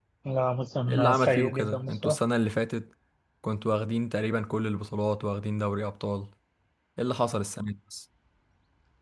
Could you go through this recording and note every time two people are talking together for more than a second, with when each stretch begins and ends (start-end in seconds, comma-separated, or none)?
0.9-2.2